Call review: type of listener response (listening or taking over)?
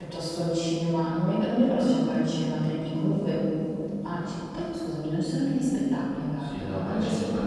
taking over